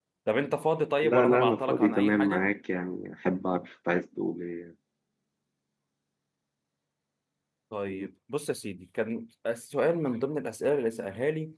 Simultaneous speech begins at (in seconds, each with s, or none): 1.0 s